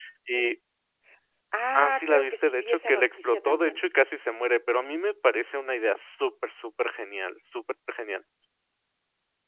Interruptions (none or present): present